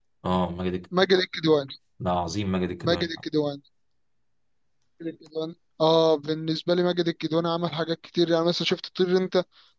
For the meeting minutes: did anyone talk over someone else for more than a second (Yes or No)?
No